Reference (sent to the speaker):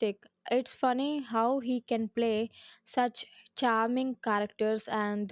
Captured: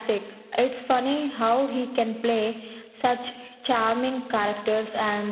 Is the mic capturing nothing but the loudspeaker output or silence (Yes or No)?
Yes